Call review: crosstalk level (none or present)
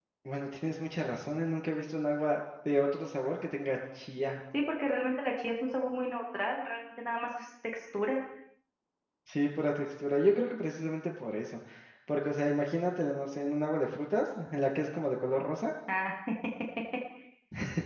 none